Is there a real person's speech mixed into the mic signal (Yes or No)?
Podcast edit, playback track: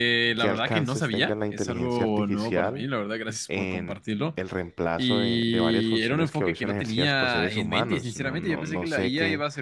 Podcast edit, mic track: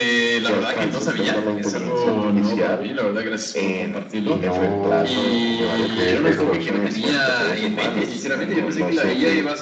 Yes